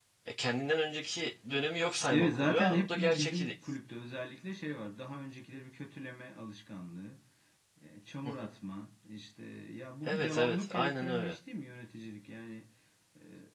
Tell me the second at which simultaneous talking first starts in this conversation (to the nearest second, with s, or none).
2 s